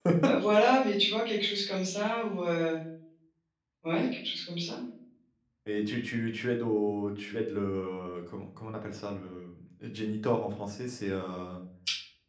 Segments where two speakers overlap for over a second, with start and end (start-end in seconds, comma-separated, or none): none